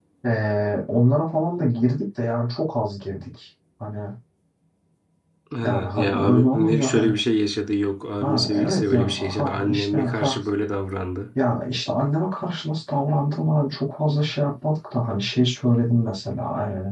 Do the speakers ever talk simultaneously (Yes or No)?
Yes